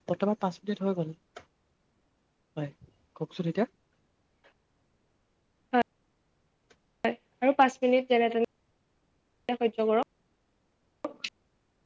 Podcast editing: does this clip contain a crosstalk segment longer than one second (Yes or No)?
No